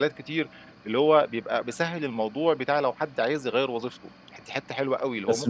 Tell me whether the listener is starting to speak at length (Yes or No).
Yes